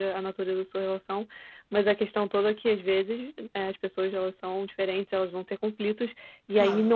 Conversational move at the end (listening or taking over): listening